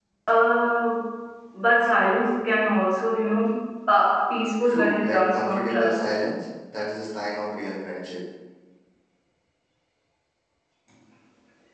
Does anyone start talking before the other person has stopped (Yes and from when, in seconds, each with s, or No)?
Yes, from 4.6 s